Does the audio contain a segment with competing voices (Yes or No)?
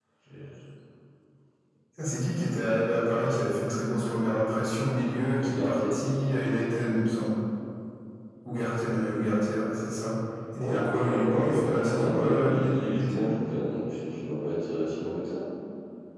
Yes